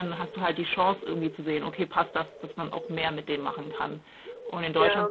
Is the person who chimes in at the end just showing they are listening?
Yes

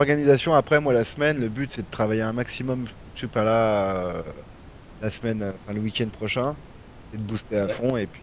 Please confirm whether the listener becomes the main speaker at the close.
No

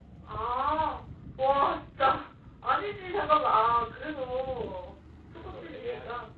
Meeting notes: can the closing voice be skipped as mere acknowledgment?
Yes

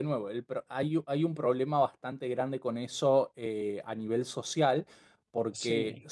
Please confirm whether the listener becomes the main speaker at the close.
No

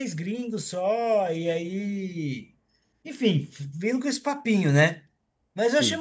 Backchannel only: Yes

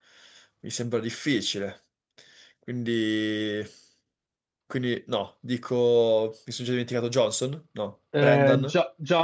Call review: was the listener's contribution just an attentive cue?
No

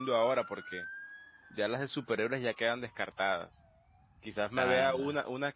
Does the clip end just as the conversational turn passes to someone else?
No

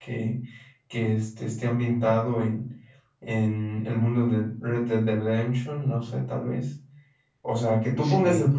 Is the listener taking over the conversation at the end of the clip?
No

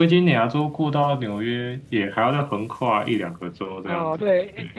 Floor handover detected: Yes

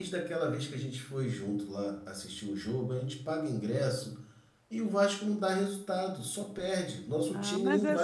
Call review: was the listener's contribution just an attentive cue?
No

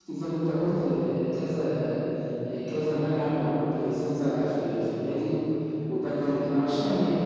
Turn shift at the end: No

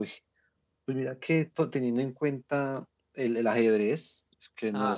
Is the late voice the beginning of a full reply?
No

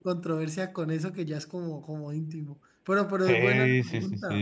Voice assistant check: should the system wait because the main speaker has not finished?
No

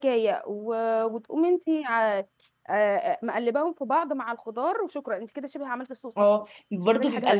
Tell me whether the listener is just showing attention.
No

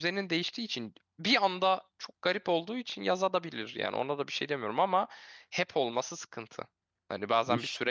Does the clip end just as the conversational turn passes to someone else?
No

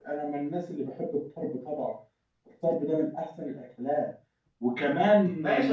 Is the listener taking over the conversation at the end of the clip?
Yes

